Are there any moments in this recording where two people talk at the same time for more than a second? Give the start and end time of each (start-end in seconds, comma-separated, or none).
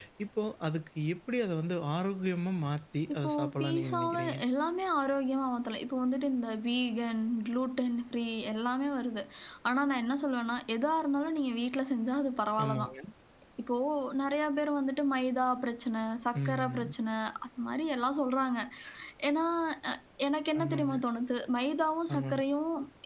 3.1-4.4